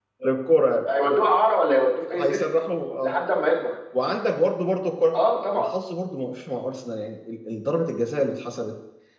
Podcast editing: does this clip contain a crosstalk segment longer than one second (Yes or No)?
No